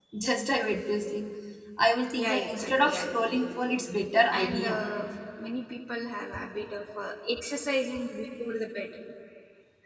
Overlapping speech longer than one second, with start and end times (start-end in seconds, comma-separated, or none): 2.2-3.8